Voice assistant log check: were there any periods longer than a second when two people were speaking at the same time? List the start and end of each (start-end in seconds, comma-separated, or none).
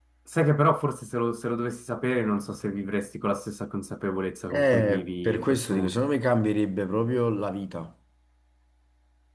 4.5-5.9